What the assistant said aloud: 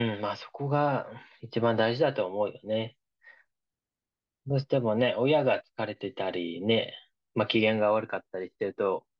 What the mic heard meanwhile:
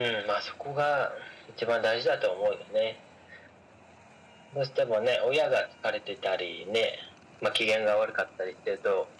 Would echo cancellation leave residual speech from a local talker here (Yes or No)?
No